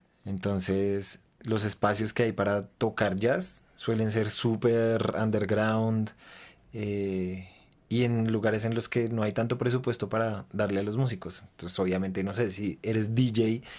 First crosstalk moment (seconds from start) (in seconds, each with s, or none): none